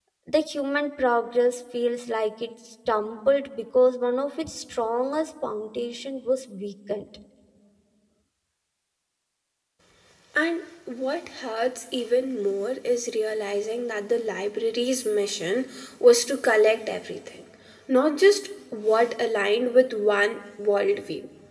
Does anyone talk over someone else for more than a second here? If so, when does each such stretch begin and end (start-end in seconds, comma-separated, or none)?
none